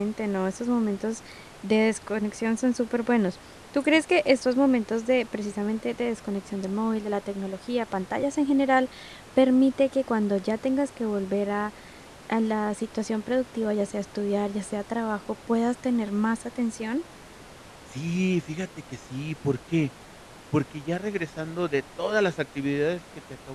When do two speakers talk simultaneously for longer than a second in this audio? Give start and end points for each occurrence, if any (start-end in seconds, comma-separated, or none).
none